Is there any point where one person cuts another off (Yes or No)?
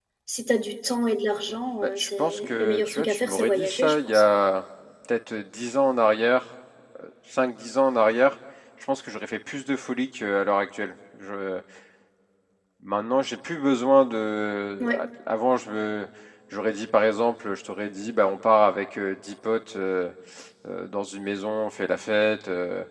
Yes